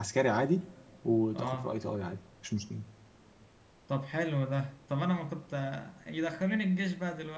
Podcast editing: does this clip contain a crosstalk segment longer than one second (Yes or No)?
No